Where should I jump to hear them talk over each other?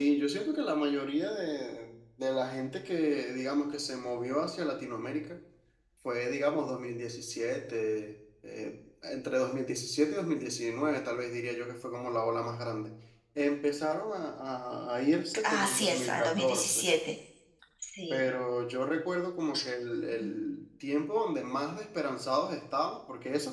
15.4 s

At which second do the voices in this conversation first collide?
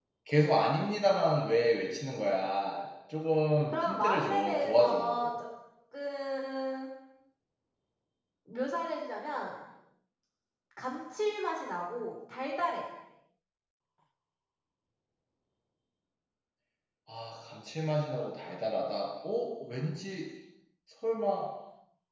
3.7 s

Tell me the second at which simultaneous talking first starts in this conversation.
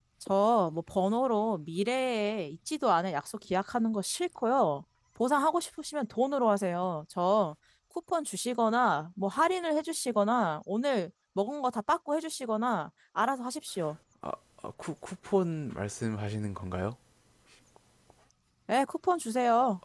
none

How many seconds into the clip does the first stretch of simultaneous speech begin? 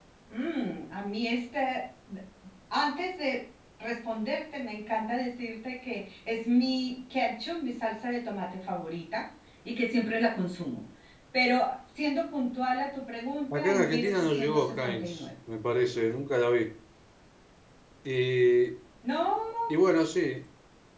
13.5 s

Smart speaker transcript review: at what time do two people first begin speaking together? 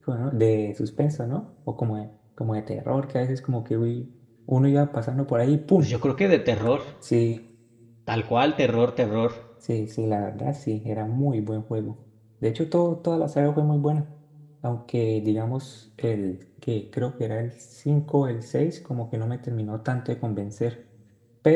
none

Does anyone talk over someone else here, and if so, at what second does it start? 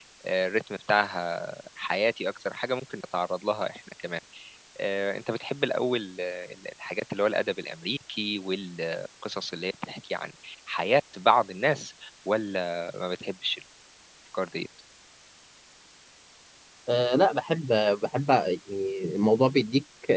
none

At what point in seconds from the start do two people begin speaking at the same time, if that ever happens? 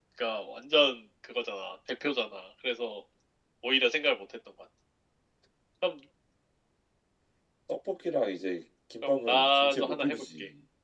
9.0 s

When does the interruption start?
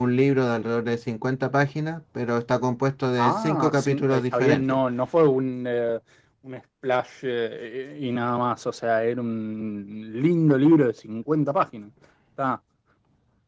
3.2 s

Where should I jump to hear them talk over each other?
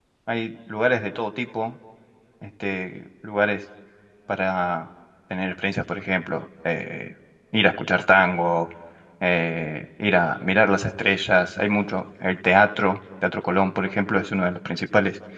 none

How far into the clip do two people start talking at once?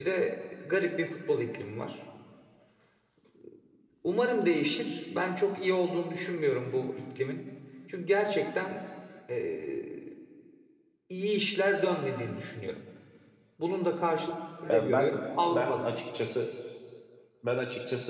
14.6 s

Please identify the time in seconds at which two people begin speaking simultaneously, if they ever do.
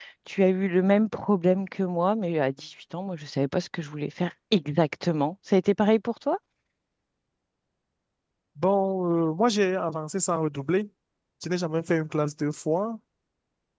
none

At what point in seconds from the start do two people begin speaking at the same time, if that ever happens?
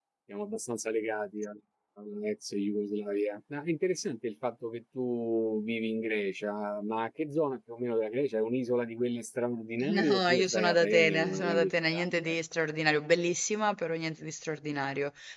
9.8 s

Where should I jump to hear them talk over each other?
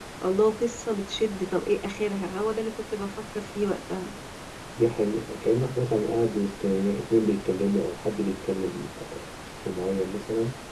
none

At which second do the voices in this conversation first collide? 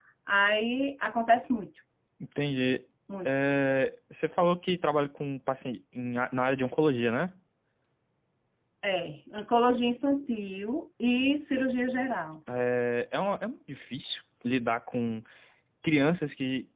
none

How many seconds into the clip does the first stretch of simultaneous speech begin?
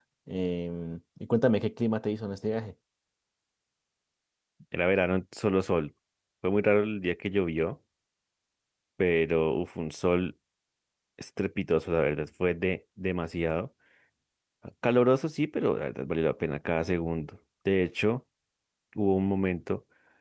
none

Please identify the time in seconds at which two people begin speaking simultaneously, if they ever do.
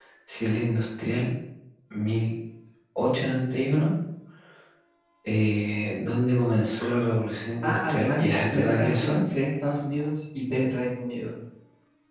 7.6 s

